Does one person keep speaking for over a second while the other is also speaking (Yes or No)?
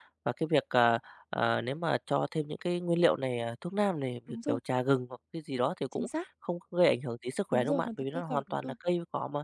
Yes